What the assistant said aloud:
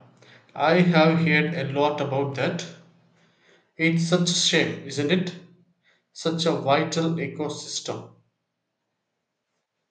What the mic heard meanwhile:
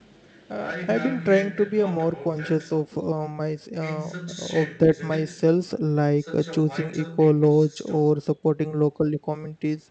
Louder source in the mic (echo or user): user